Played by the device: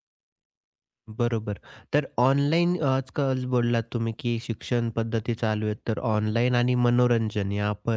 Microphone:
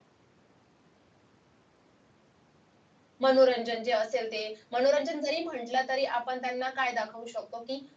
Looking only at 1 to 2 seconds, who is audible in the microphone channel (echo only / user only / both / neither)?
neither